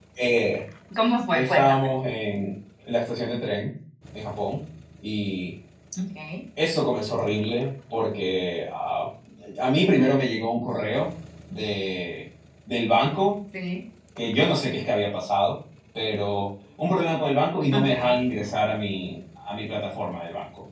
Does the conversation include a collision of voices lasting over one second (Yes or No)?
No